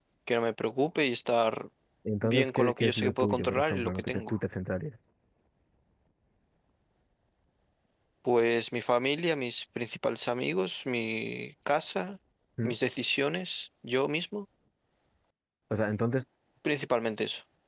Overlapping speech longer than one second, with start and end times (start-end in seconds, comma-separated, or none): 2.2-4.4